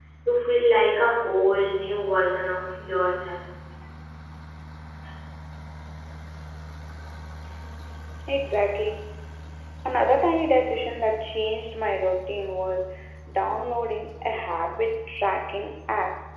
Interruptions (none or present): none